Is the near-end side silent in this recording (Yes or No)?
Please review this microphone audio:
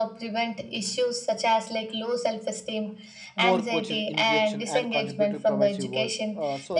No